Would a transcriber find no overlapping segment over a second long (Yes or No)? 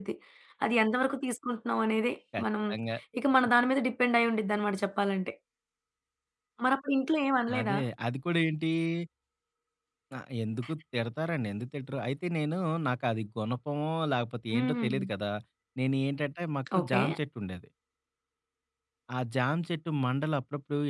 Yes